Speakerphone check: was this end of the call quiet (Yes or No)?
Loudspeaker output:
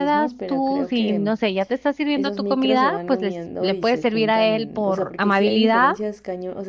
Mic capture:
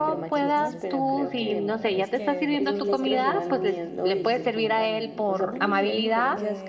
No